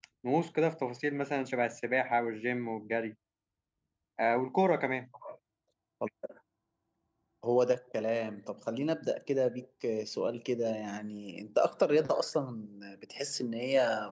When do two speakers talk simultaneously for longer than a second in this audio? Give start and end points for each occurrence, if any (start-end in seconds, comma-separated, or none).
none